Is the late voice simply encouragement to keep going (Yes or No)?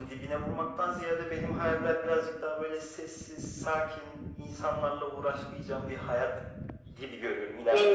Yes